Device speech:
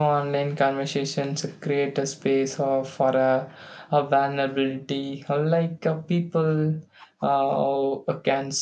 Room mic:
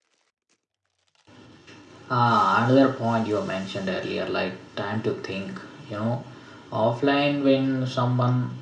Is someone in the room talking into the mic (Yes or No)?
Yes